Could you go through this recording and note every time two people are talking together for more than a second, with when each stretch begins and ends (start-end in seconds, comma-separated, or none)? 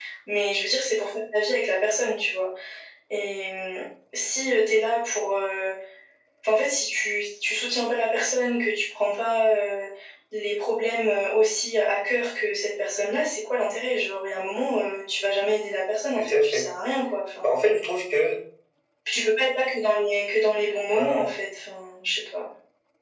none